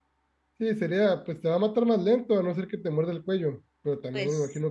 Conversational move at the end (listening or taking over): listening